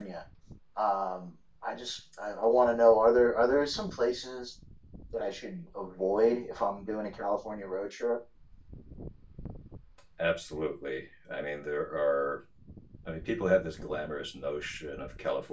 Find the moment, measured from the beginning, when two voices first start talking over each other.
none

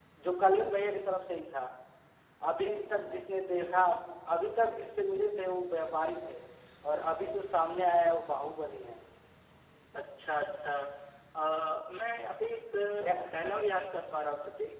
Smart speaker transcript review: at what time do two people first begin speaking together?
none

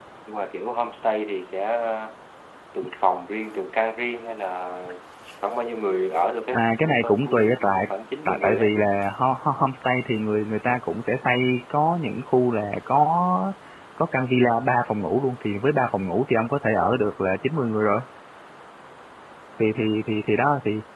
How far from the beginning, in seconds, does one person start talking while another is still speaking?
6.5 s

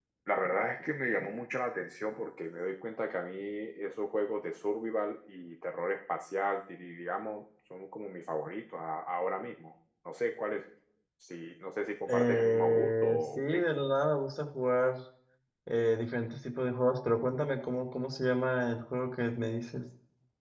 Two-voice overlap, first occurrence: 12.1 s

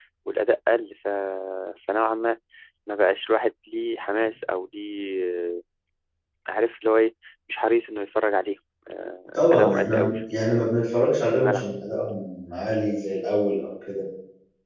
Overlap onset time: 9.3 s

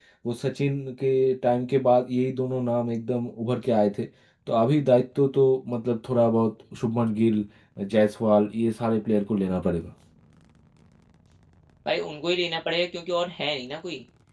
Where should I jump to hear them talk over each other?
none

